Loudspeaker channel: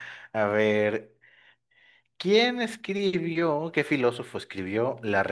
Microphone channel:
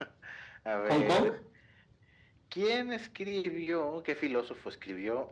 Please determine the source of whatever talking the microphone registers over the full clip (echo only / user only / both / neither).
both